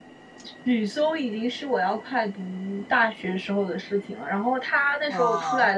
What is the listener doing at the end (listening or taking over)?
listening